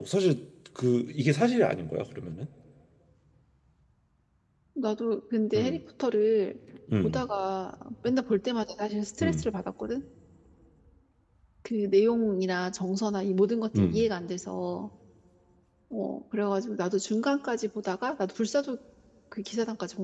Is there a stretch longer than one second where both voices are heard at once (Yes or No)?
No